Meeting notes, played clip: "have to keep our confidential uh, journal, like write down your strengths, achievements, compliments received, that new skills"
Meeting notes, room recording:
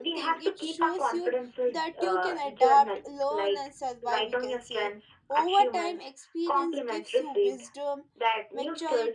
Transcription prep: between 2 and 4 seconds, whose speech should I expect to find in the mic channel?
both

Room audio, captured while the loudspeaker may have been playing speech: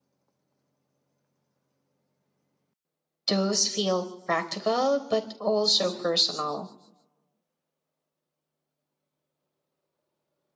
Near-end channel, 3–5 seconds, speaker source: user only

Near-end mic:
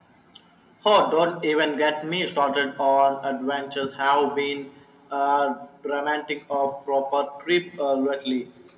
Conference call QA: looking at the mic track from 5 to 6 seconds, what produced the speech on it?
echo only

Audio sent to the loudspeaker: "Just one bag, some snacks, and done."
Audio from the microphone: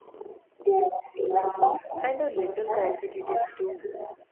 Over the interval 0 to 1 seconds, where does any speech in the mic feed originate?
echo only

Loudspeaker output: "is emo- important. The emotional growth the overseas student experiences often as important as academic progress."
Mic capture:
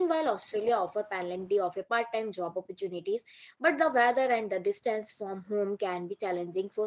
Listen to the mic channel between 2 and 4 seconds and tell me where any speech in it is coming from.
user only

